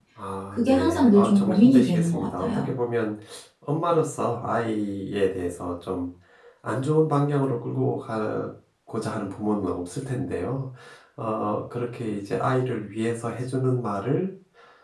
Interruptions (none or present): present